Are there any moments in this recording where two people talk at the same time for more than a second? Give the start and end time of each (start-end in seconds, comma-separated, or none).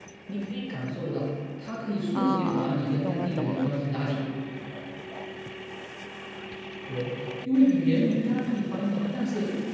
2.1-3.7